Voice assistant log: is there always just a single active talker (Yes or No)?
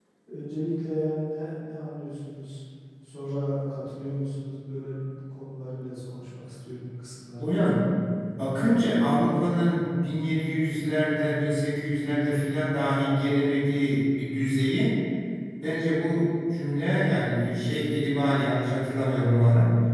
Yes